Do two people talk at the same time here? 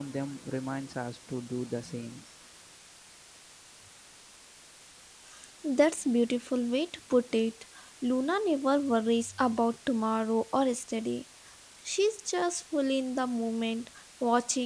No

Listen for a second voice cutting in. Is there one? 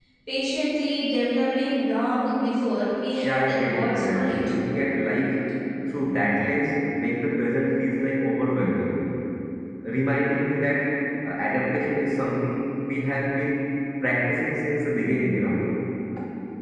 Yes, from 3.2 s

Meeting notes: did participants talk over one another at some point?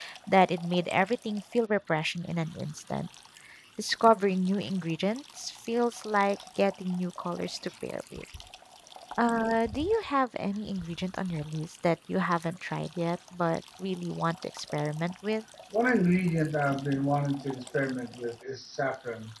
No

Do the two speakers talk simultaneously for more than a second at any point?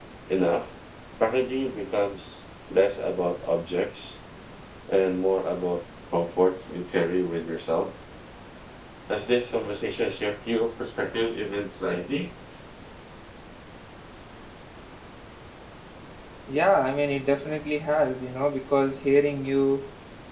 No

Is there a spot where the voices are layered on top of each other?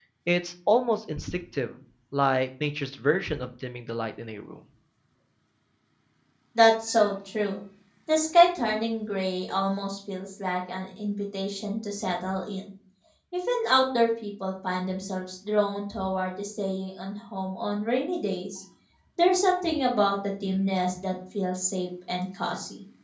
No

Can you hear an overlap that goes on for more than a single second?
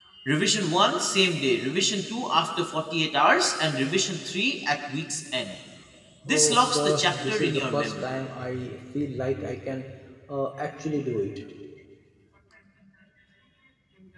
Yes, from 6.3 s

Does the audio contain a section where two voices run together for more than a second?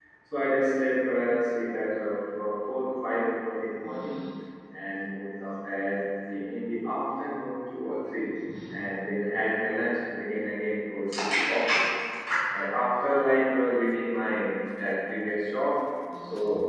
No

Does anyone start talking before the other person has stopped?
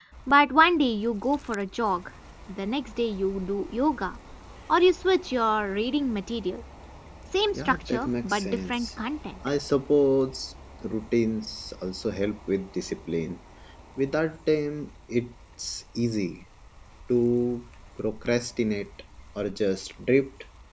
Yes, from 7.5 s

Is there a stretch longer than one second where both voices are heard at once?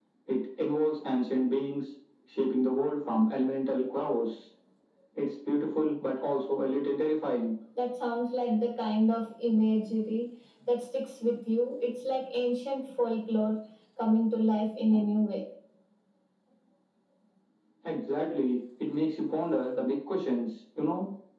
No

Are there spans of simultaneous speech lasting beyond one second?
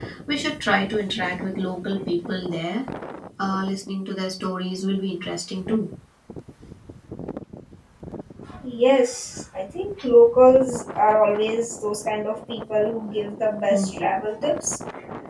No

